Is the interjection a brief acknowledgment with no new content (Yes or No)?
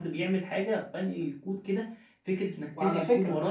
Yes